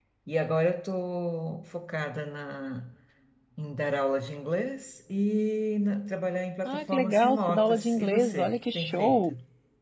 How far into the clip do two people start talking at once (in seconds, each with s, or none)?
6.7 s